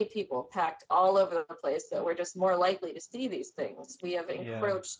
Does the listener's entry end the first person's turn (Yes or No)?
No